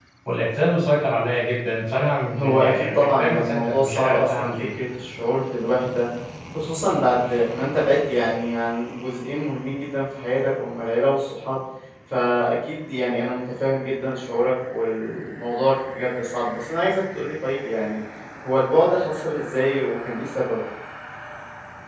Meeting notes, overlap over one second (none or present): present